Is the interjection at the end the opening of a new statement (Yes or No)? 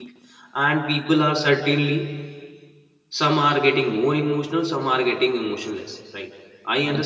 No